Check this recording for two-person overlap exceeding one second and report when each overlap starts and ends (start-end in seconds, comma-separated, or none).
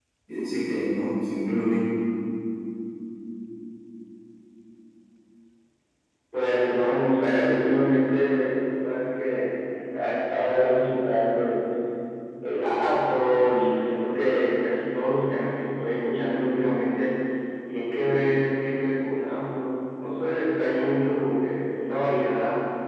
none